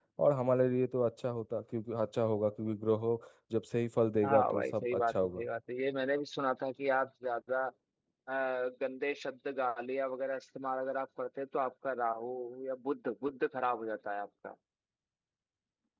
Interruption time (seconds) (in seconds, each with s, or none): 4.2 s